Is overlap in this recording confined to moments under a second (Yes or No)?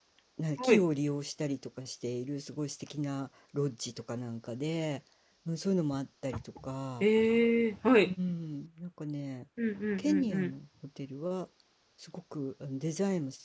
Yes